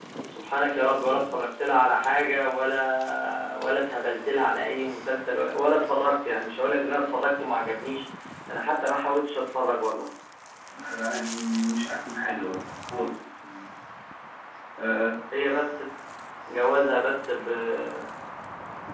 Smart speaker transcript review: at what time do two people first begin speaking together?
none

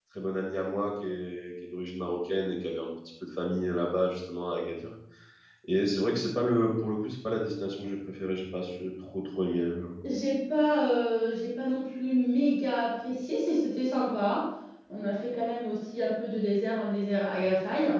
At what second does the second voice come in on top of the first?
none

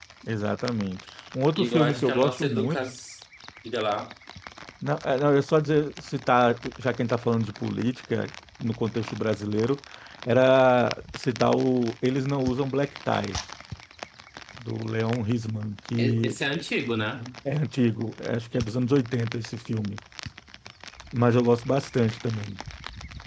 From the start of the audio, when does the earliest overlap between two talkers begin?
1.6 s

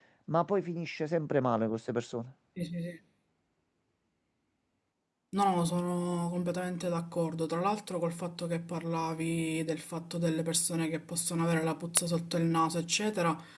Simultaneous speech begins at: none

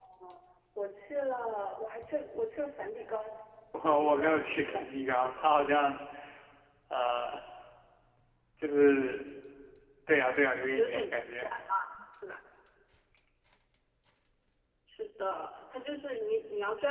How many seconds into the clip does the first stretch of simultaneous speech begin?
3.9 s

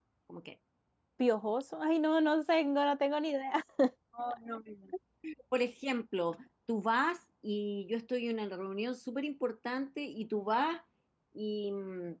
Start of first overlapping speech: none

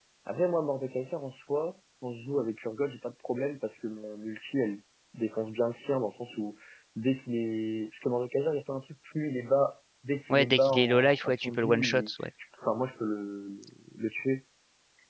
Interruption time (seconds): 10.3 s

